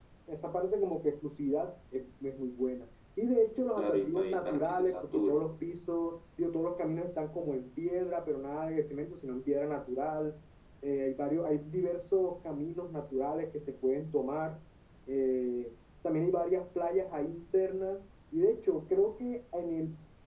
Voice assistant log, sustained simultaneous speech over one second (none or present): present